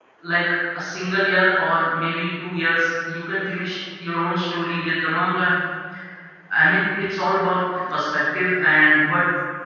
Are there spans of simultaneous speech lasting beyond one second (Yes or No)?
No